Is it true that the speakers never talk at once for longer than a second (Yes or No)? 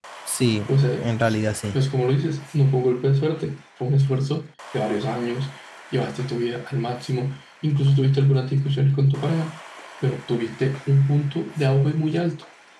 Yes